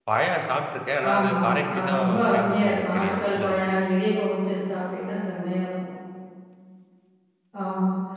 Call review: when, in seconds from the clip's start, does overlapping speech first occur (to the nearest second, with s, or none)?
1 s